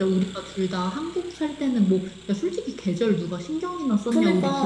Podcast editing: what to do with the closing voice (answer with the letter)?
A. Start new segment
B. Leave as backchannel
A